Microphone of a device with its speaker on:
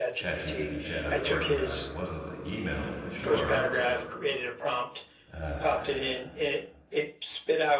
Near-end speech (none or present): present